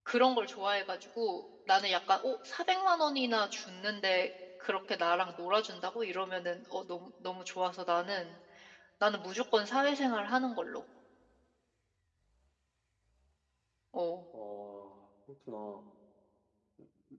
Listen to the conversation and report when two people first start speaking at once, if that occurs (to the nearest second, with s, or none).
none